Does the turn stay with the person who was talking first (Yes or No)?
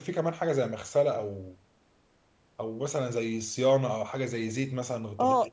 No